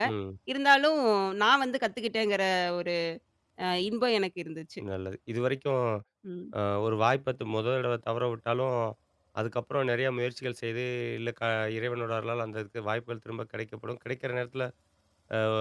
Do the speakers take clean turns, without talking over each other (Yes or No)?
Yes